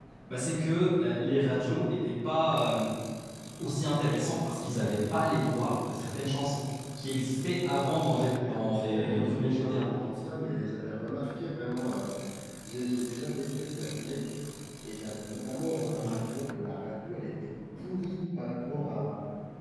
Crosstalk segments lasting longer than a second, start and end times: 8.4-9.8

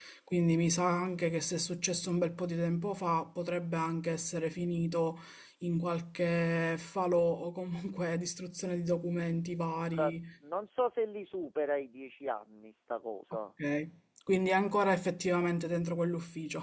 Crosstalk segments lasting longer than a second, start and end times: none

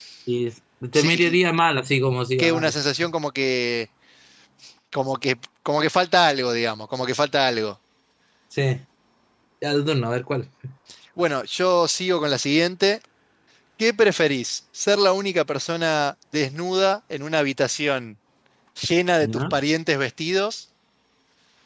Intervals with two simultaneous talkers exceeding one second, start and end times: none

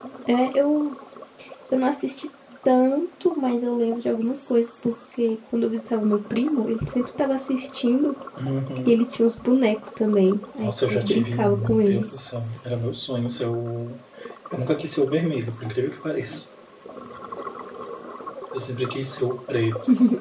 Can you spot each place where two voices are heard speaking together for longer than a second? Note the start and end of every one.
10.6-12.1

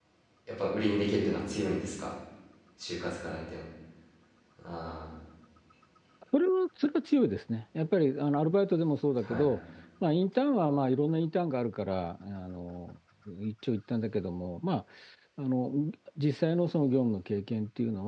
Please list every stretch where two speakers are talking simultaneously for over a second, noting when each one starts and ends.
none

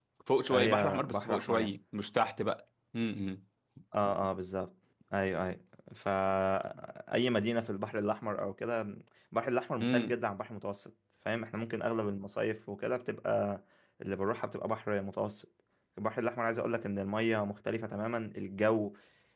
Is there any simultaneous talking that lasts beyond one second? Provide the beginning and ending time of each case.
0.5-1.7

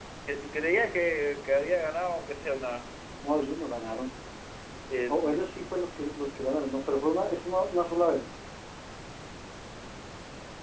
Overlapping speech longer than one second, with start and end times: none

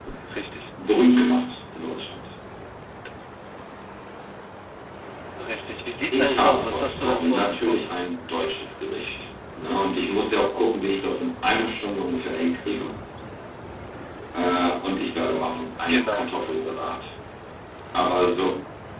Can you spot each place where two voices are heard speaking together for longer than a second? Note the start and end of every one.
6.1-7.9

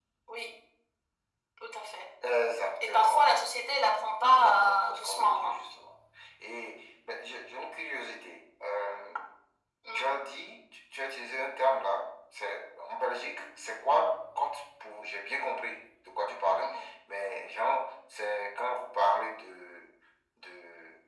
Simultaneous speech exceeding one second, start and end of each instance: 4.3-5.5

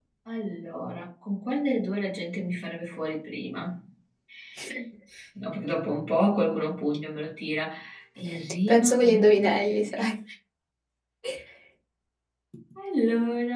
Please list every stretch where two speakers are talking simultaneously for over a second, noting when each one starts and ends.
8.7-10.1

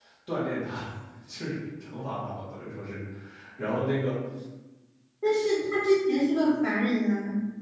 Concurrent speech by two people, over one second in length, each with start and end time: none

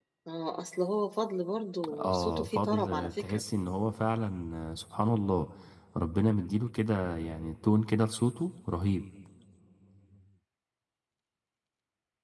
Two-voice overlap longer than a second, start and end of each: 1.9-3.4

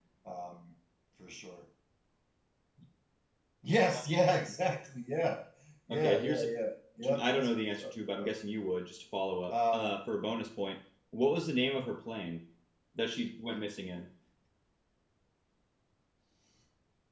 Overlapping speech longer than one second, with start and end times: 7.0-8.3

